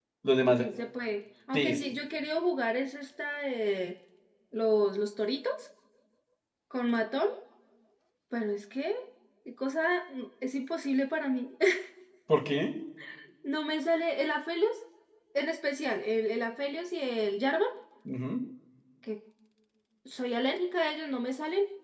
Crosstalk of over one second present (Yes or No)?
No